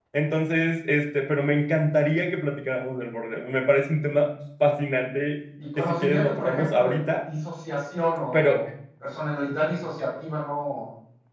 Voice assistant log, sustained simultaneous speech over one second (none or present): present